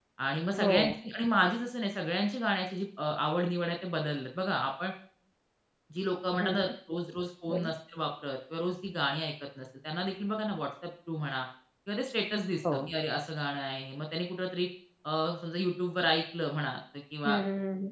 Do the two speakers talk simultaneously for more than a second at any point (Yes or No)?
No